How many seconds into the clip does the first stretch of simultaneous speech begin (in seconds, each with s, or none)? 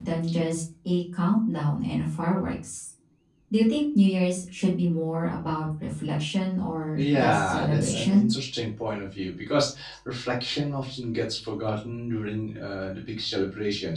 7.0 s